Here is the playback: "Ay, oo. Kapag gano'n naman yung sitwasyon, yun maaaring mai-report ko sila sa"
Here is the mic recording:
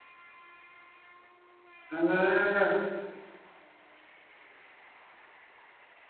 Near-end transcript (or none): Hmm,